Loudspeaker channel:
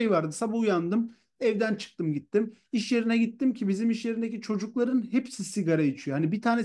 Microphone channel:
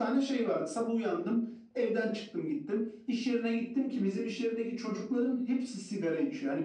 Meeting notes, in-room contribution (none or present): none